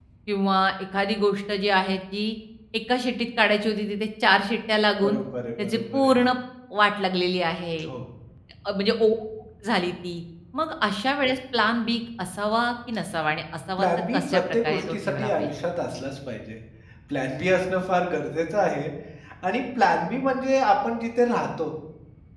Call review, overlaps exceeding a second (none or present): present